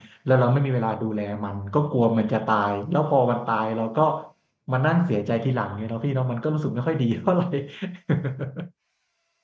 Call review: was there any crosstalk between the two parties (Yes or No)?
No